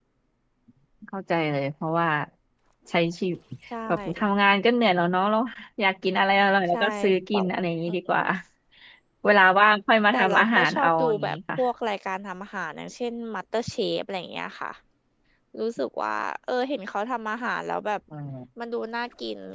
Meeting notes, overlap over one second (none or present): present